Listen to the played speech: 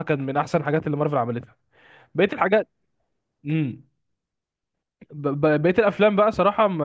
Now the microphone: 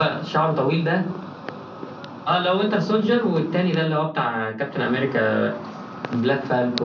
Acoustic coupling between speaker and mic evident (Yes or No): No